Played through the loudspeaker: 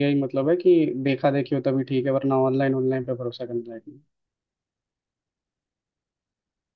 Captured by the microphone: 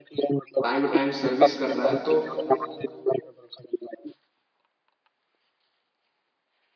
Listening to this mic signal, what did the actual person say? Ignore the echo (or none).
टाइम टू टाइम सर्विस कर रहा है तो